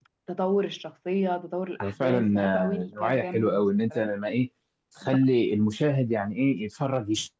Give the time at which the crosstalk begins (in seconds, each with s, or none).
1.8 s